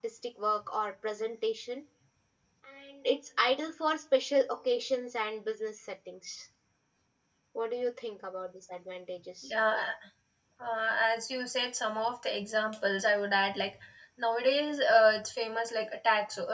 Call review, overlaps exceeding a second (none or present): none